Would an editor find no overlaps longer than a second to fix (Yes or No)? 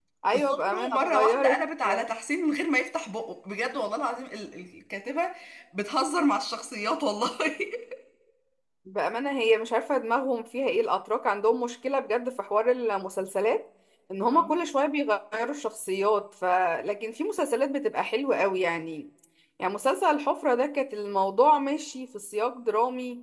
No